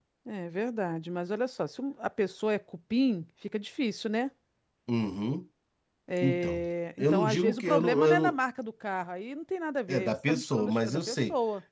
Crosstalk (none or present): present